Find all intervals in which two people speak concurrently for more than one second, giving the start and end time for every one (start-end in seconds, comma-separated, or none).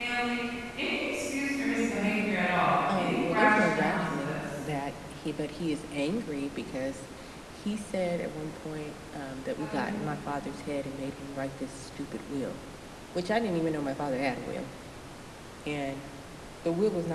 3.0-4.6